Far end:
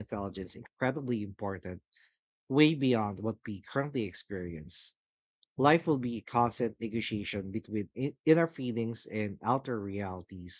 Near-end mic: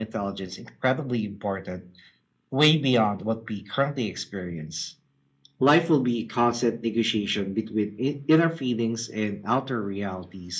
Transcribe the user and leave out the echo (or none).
none